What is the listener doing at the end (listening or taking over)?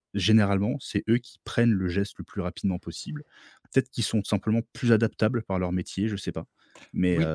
taking over